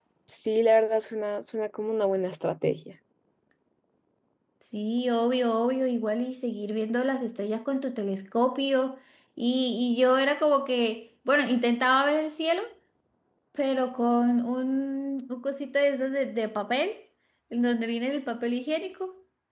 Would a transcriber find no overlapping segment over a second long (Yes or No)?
Yes